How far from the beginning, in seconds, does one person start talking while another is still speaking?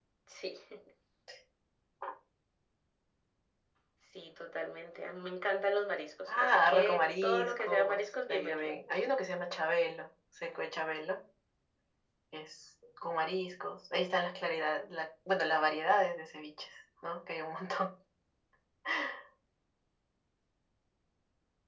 6 s

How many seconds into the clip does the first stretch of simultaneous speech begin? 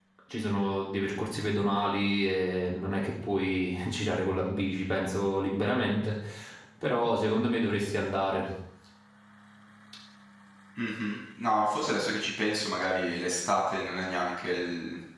none

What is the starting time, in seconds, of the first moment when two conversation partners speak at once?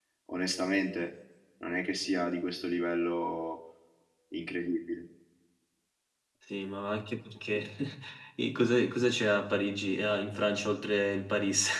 none

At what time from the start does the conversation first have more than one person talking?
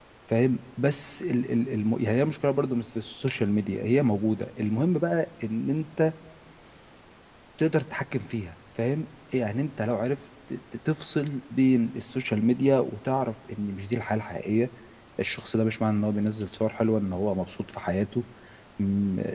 none

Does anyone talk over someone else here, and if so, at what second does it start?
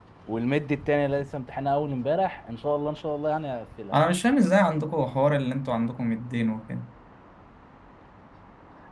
none

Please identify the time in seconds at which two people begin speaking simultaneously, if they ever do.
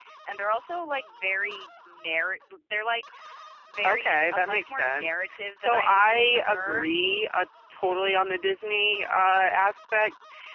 4 s

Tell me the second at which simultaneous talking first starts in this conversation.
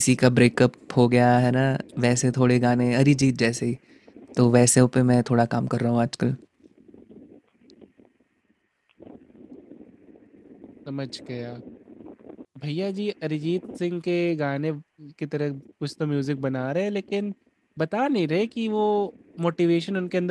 none

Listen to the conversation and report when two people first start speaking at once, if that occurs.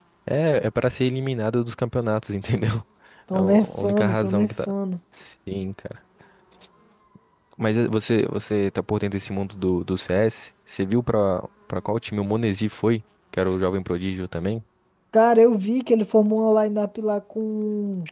3 s

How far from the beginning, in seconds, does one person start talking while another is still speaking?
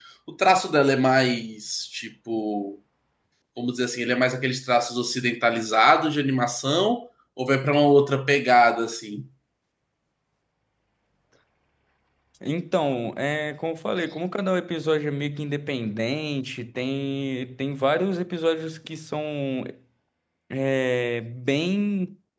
none

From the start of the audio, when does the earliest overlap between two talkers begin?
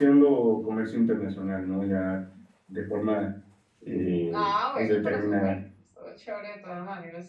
4 s

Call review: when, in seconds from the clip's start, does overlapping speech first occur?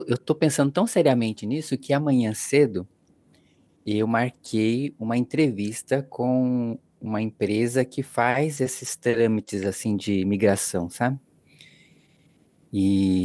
none

